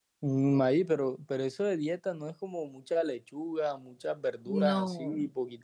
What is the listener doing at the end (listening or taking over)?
listening